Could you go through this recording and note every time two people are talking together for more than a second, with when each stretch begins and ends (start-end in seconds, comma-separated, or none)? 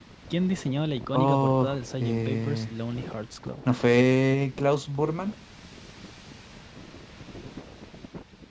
1.1-2.7